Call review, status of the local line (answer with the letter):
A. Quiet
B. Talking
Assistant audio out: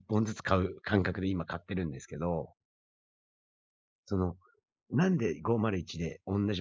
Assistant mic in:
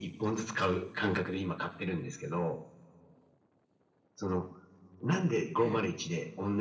B